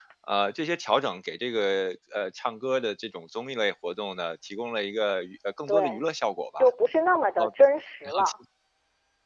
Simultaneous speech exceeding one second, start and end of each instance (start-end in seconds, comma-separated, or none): none